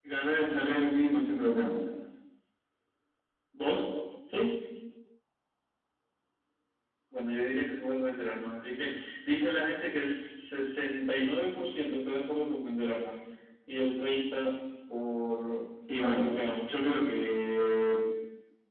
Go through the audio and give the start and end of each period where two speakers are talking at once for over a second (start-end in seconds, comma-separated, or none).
none